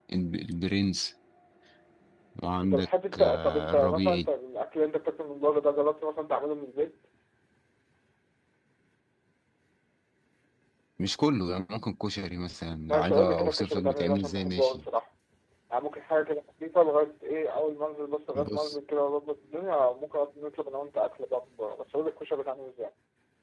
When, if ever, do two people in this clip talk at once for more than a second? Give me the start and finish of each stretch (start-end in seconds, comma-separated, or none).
2.6-4.3, 12.9-14.8